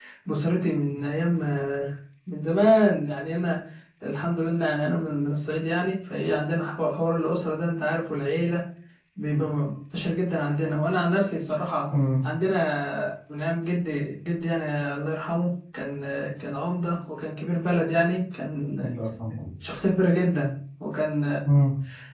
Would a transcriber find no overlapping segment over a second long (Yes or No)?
Yes